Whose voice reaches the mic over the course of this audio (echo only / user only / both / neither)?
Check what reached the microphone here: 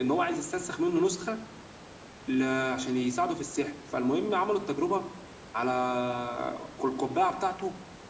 user only